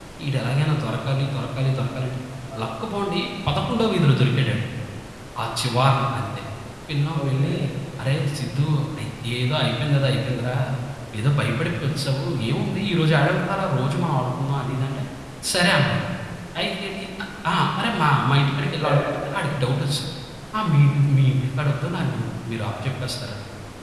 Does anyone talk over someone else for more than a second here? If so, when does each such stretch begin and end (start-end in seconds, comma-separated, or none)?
none